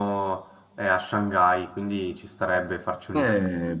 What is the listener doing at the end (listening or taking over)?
taking over